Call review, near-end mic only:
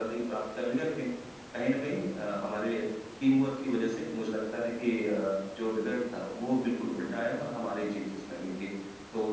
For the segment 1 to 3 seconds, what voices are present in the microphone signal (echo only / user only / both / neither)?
echo only